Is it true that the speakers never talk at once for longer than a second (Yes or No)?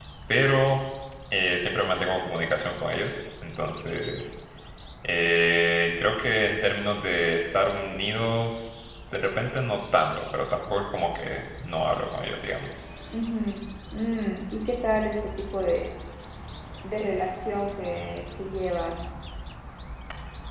Yes